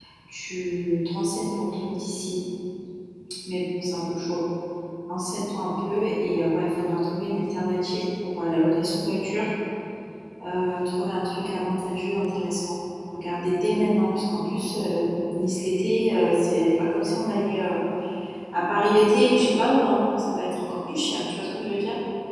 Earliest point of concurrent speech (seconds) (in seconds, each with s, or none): none